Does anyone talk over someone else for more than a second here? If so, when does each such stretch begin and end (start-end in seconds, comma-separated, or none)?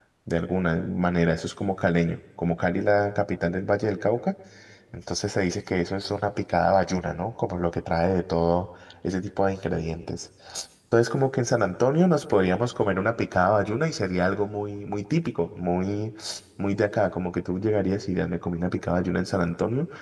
none